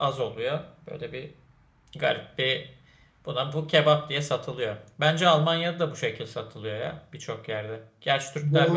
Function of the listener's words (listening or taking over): taking over